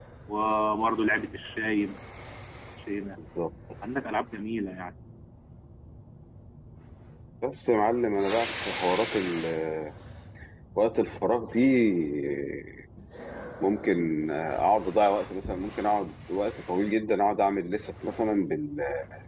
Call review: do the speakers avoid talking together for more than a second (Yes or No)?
Yes